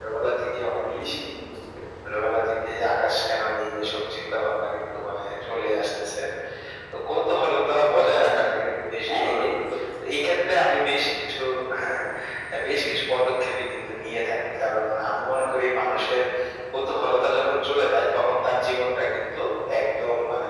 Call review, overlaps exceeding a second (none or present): none